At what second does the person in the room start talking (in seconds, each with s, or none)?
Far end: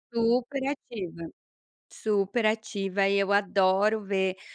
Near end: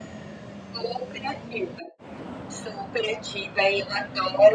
none